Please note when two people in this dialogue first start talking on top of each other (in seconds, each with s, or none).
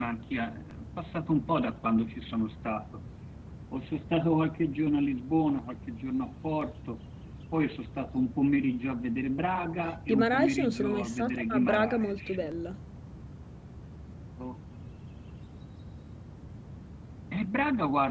9.8 s